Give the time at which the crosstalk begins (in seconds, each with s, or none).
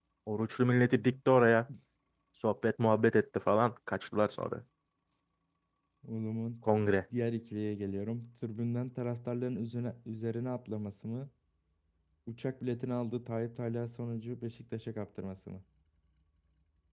none